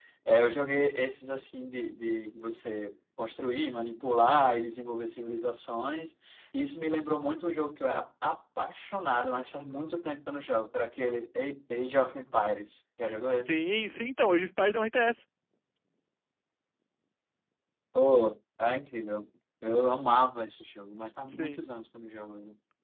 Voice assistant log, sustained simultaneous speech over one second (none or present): none